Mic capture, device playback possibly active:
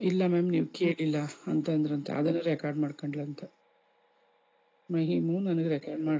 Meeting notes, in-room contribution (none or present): none